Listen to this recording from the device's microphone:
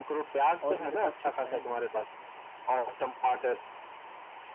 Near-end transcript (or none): और मेरे पास कुछ है नहीं